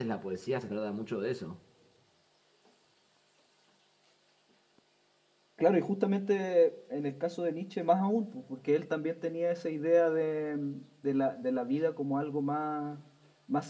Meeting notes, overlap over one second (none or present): none